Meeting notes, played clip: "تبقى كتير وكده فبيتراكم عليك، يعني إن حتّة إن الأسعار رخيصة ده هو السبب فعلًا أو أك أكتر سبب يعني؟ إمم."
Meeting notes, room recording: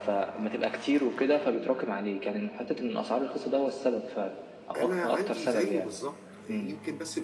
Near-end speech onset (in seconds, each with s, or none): 4.8 s